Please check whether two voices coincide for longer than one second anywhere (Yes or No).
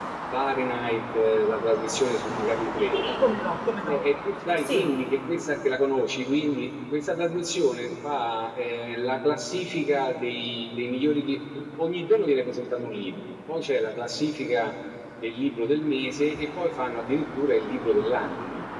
No